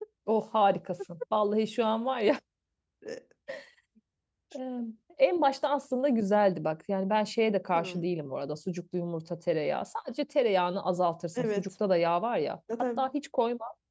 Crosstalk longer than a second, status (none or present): none